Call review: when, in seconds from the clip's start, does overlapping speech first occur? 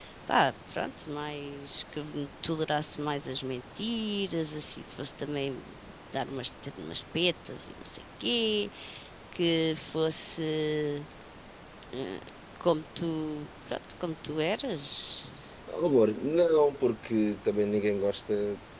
none

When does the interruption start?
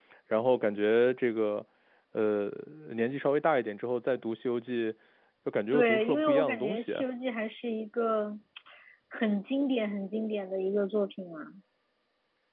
5.7 s

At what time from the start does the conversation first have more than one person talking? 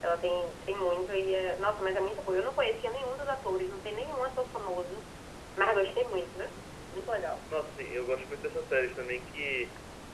none

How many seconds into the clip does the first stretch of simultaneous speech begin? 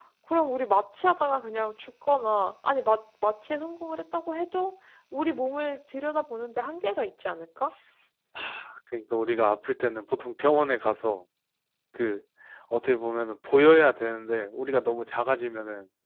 none

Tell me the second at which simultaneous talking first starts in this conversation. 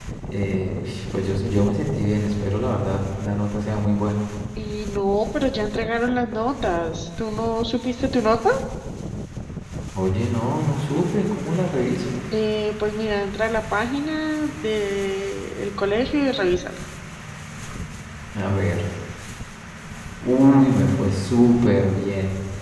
none

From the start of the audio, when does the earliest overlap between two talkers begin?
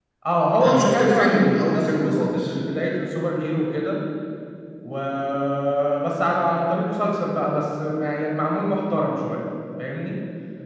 0.6 s

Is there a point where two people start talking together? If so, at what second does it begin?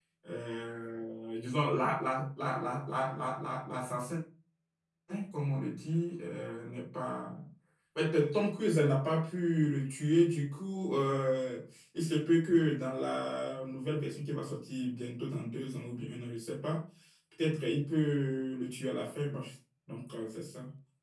none

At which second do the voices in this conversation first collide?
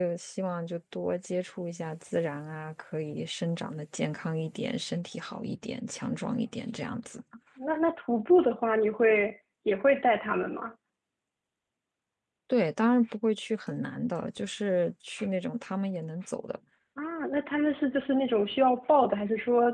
none

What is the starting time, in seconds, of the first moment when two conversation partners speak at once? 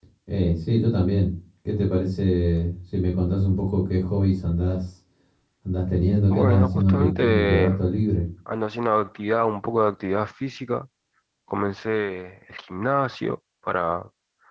6.3 s

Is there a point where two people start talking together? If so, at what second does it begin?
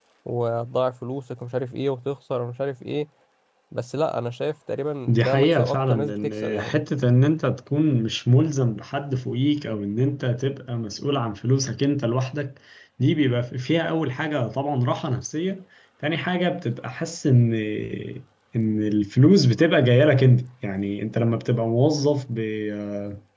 5.1 s

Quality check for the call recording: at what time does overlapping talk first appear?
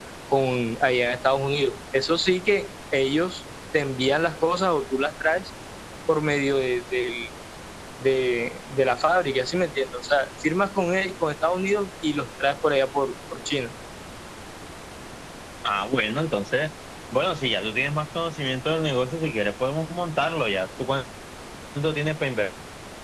none

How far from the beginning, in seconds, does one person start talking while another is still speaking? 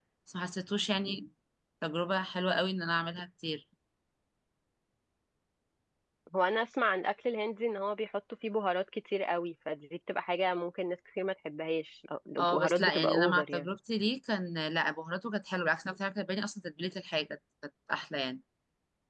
12.4 s

